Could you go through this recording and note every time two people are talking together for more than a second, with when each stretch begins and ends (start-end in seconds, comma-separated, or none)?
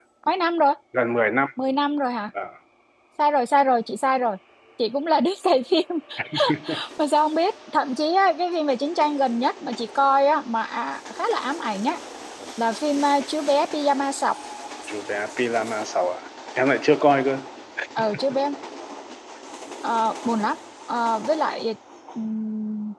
none